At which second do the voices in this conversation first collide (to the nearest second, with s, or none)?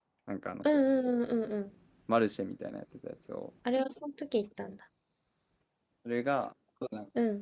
none